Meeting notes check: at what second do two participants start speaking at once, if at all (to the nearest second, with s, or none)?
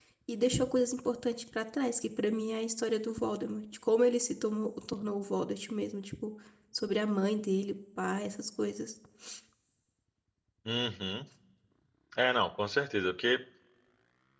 none